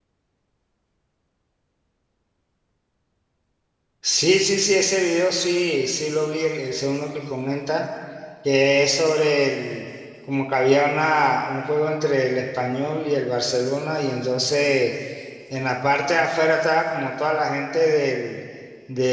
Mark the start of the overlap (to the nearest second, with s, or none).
none